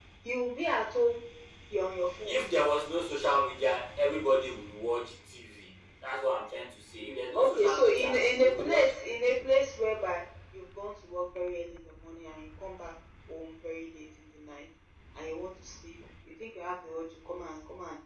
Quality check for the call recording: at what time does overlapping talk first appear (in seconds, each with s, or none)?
7.3 s